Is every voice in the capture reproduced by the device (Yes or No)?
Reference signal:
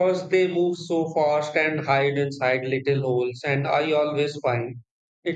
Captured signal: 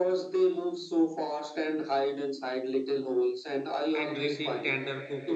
No